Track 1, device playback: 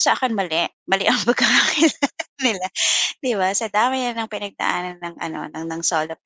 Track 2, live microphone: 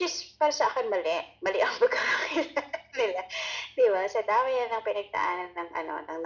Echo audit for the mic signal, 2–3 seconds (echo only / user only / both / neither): echo only